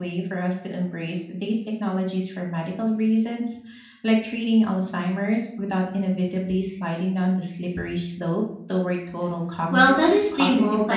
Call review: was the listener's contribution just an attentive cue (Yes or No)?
No